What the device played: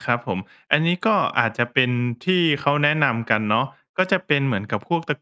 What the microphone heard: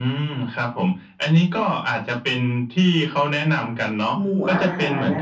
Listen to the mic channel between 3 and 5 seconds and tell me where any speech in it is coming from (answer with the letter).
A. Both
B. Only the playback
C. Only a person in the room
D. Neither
A